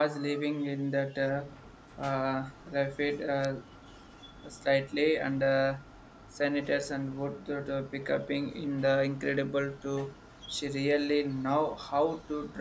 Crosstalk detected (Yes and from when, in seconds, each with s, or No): No